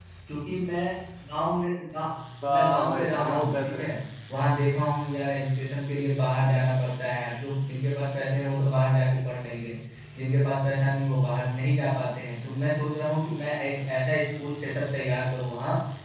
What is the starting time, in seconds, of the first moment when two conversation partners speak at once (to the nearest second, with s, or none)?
2 s